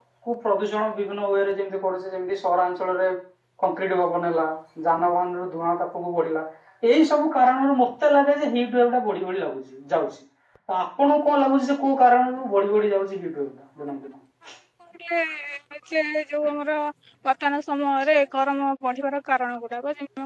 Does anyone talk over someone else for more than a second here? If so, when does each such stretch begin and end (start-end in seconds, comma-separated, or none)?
none